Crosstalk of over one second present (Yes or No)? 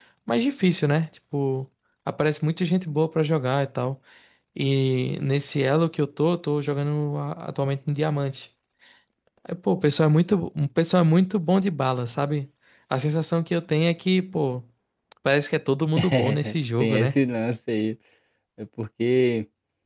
Yes